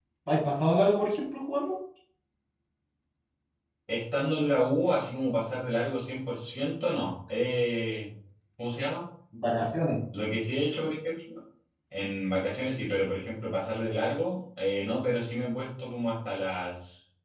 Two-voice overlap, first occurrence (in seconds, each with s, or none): none